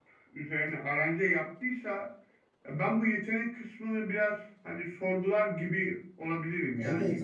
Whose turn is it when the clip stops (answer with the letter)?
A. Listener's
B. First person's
A